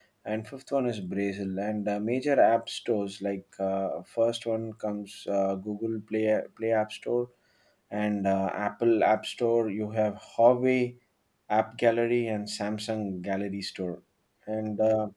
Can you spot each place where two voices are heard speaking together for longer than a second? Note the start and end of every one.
none

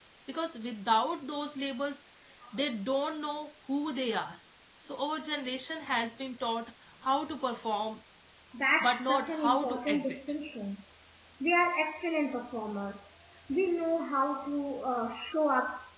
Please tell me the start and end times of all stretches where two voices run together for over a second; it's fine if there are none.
8.8-10.2

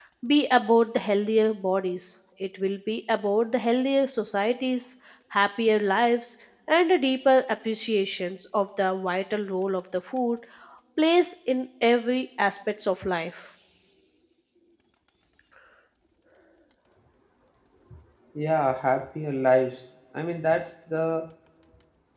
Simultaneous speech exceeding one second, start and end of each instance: none

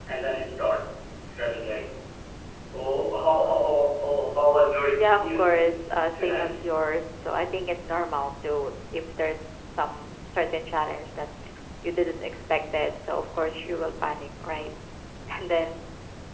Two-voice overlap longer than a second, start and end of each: 5.0-6.6

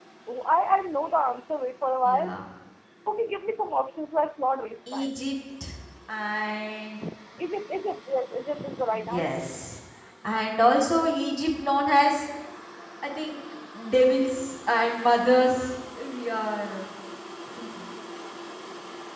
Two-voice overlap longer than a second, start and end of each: none

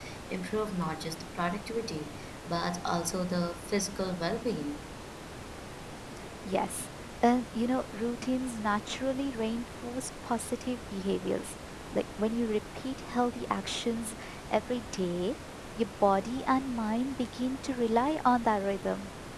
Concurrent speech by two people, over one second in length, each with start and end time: none

